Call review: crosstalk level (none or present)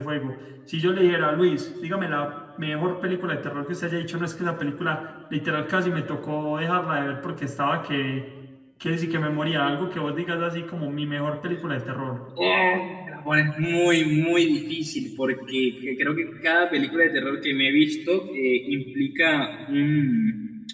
none